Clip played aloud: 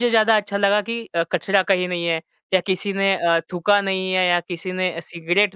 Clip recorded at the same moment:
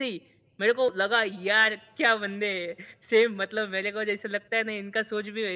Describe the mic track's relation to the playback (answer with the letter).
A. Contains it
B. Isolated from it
B